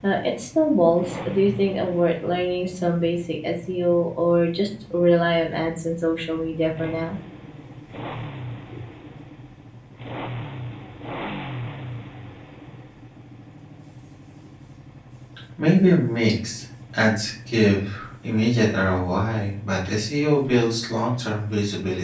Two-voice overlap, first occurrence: none

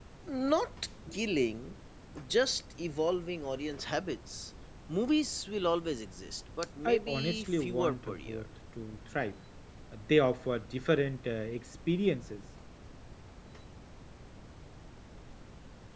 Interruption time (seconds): 6.8 s

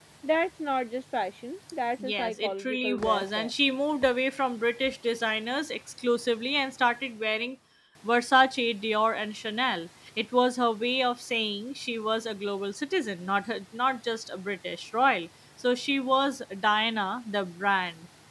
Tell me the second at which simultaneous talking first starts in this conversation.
2.0 s

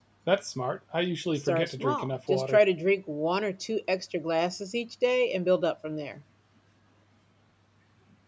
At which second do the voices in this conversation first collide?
1.4 s

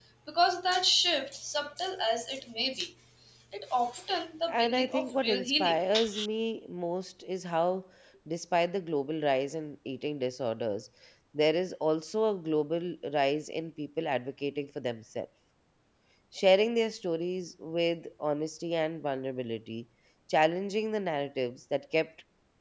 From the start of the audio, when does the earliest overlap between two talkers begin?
4.5 s

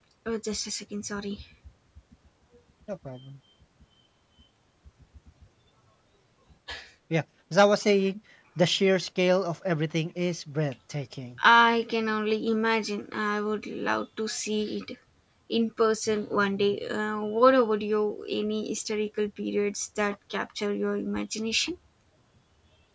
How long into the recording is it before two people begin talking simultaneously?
none

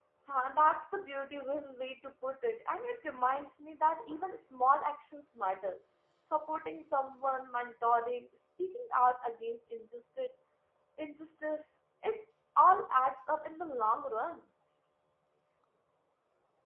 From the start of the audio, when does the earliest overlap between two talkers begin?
none

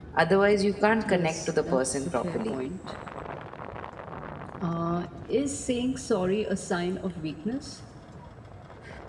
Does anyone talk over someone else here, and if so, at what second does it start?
1.0 s

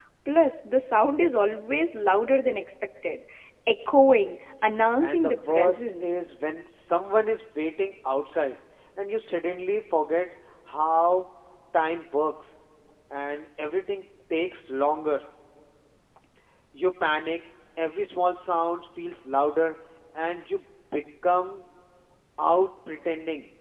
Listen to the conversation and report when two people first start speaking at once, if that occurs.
5.0 s

